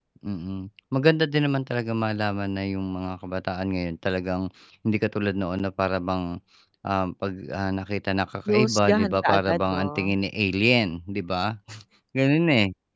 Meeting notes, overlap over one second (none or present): present